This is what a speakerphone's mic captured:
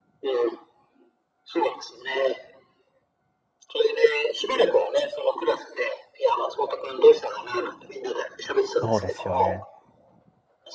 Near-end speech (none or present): present